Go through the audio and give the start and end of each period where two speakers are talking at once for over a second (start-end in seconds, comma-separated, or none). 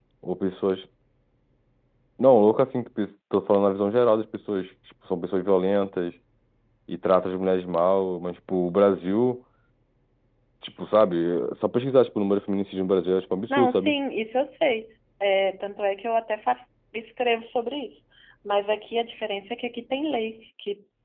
none